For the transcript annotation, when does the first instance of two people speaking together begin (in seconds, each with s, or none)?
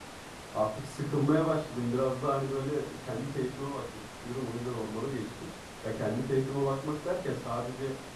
none